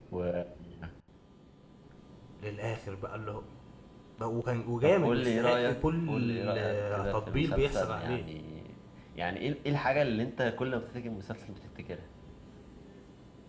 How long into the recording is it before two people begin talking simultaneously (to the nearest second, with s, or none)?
5 s